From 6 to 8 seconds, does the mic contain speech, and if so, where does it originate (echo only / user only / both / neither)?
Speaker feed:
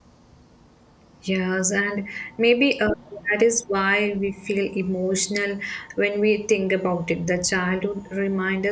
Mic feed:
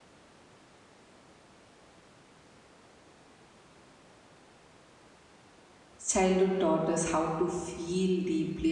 user only